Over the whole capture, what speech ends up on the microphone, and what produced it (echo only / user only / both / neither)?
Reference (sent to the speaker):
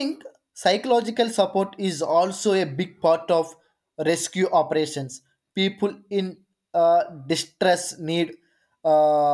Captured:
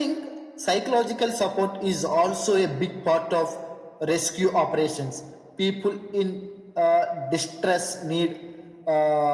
echo only